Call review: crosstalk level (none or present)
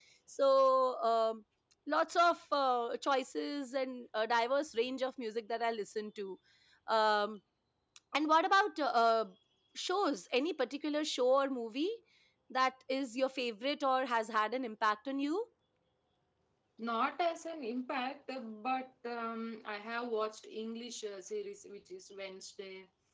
none